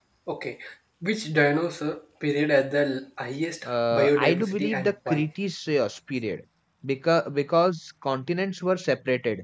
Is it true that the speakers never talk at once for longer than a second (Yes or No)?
No